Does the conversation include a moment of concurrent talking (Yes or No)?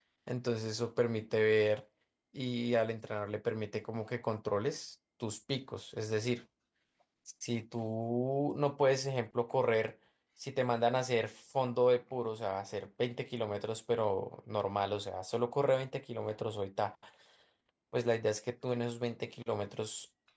No